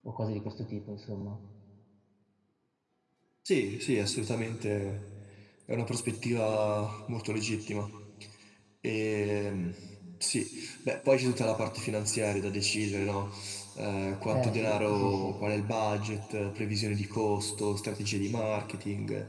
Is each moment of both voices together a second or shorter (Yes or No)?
No